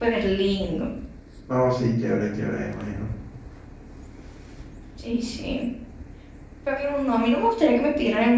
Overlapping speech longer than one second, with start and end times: none

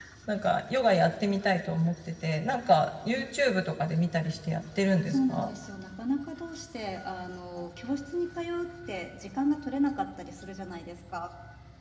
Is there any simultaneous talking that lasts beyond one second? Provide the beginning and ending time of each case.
none

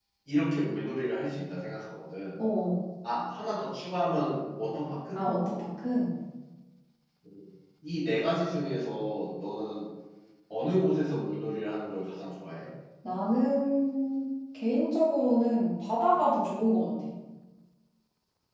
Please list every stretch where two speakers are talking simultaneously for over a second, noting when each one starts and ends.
none

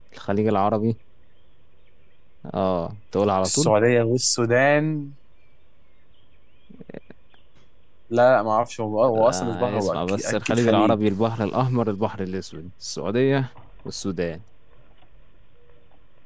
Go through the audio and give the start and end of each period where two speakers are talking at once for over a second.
9.2-11.0

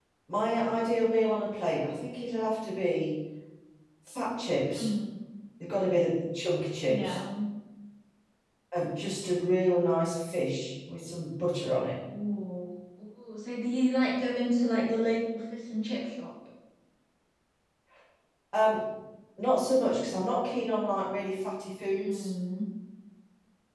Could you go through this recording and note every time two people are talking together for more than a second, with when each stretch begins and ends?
none

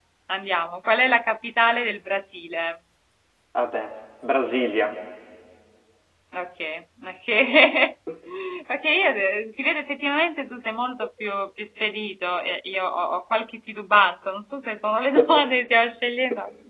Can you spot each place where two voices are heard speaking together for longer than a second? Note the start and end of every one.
none

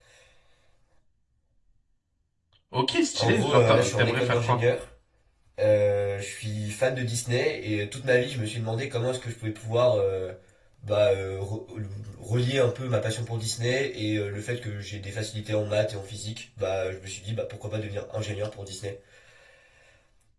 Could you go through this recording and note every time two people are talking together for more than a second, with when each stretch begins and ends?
3.2-4.6

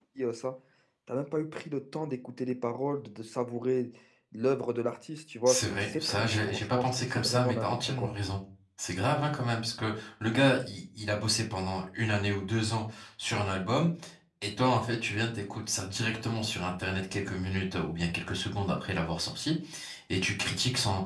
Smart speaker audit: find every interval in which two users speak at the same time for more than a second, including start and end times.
5.5-8.1

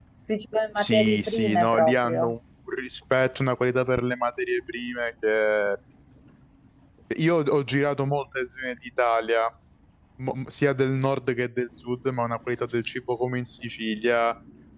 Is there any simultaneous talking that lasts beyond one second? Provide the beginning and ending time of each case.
0.8-2.2

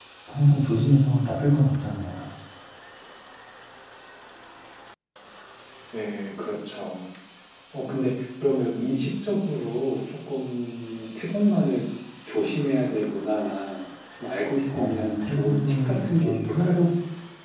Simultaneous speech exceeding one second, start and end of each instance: 14.7-16.9

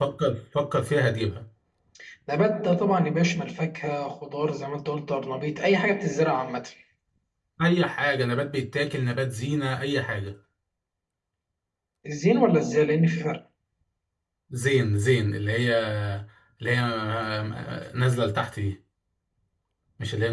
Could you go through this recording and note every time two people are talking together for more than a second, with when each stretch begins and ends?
none

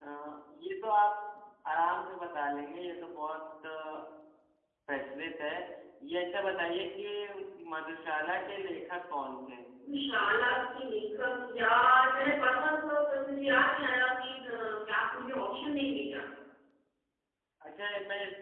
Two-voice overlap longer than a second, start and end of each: none

